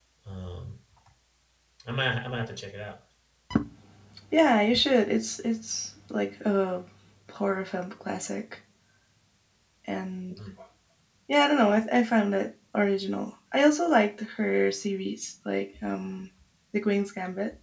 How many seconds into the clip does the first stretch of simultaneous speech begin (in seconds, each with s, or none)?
none